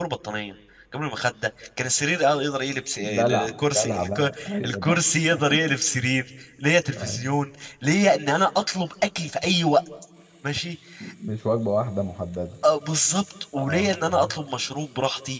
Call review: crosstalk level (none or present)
present